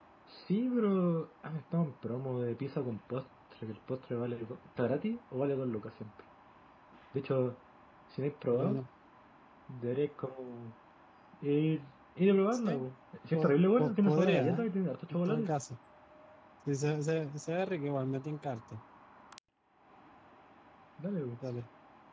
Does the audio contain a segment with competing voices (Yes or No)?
Yes